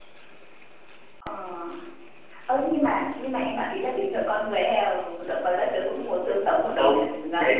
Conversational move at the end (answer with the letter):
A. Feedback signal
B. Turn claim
B